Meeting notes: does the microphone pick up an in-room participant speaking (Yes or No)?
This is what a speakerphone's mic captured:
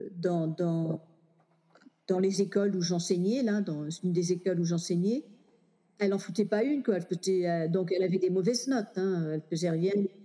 No